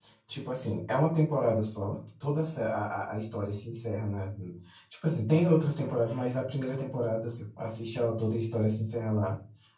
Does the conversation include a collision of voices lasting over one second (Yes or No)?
No